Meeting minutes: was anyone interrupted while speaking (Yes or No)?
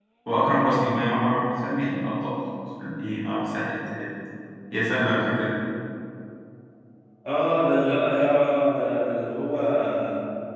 No